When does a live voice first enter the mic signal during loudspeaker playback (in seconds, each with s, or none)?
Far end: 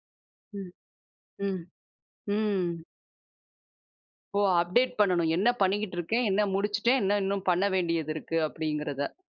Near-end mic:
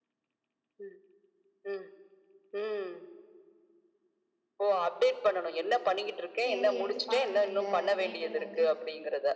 6.4 s